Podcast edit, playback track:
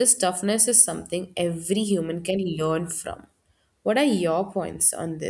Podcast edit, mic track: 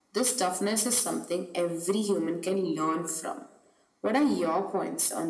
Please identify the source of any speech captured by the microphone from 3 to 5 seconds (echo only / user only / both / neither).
echo only